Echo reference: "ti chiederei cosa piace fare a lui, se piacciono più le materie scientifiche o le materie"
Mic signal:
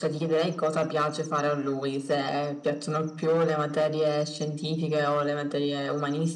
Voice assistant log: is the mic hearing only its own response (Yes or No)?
Yes